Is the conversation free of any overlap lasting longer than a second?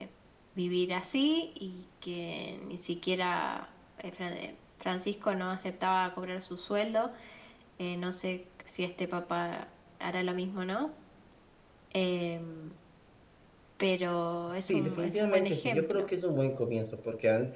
No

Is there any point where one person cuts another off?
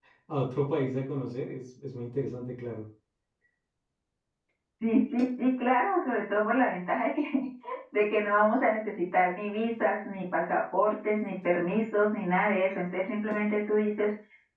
No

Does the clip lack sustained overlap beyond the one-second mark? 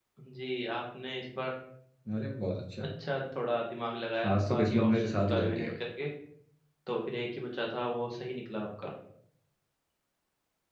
No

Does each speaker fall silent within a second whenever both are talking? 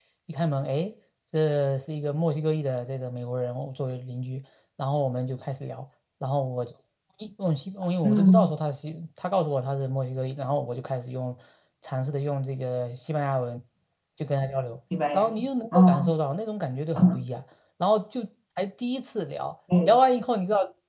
Yes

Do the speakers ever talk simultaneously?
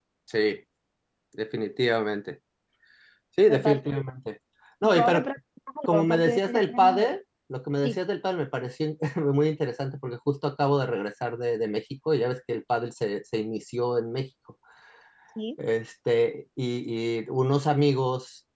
Yes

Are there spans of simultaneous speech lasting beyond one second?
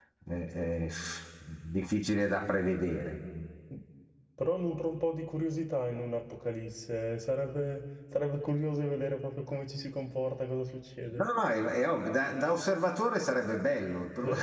No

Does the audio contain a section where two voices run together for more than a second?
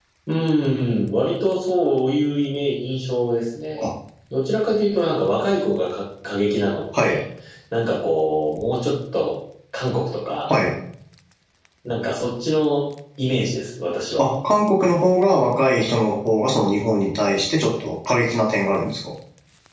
No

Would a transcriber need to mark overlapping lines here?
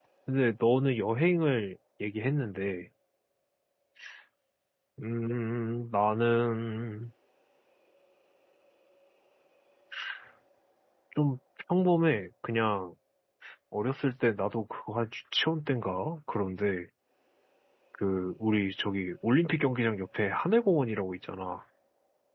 No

